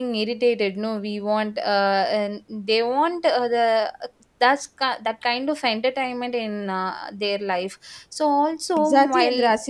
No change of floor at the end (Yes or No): No